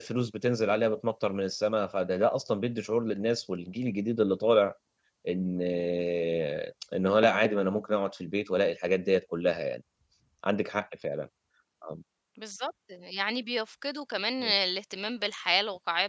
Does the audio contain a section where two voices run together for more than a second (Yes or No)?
No